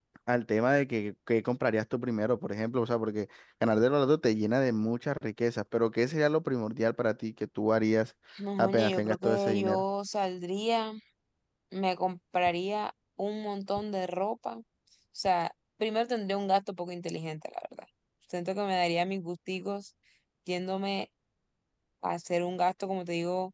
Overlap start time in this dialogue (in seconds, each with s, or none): 8.6 s